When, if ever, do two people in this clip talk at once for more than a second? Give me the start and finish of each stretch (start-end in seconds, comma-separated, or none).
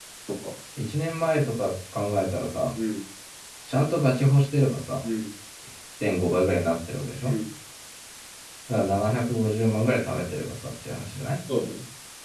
none